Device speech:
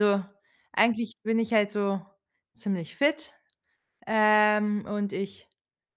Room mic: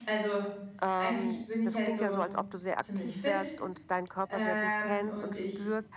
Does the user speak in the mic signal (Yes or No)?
Yes